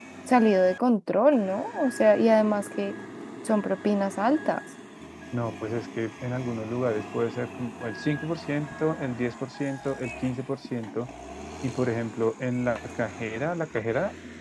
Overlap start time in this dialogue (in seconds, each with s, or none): none